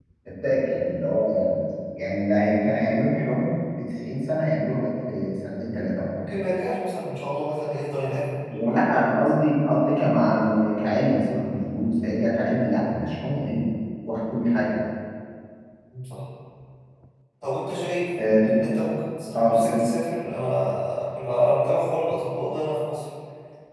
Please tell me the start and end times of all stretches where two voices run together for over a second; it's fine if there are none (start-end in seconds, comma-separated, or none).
none